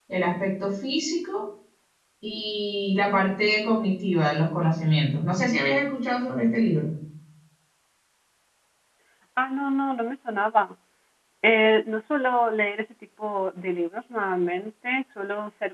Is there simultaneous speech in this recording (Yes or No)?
No